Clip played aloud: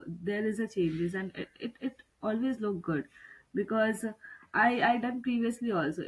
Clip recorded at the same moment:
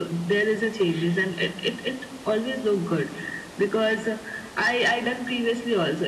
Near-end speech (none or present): none